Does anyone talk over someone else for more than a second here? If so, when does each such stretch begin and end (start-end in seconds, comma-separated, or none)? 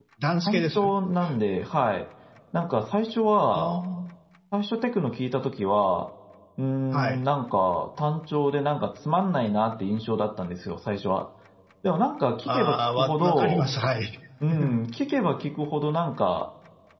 12.5-13.7